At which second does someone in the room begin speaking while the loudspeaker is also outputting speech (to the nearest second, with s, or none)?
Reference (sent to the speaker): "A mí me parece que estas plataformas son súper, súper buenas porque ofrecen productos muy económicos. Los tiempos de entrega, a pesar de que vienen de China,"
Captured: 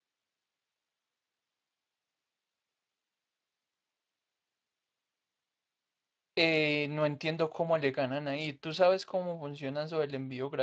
6 s